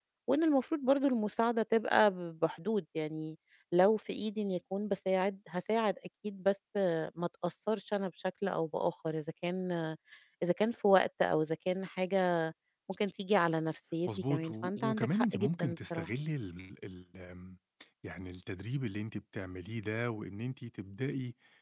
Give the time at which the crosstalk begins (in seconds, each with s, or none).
14.1 s